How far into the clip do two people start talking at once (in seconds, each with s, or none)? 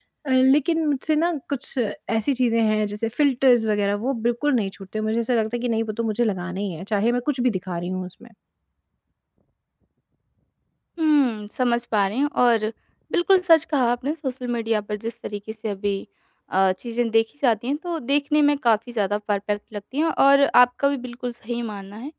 none